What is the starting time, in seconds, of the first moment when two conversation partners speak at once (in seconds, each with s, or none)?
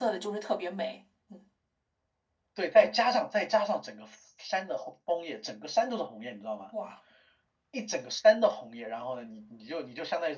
none